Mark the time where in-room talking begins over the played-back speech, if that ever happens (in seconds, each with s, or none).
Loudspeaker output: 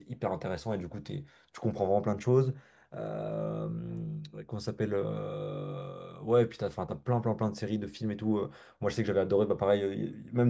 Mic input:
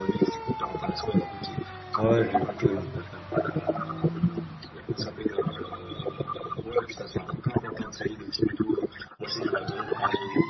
2.0 s